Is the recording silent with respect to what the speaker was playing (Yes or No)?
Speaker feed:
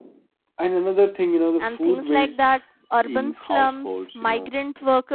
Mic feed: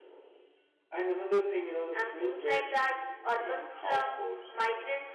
No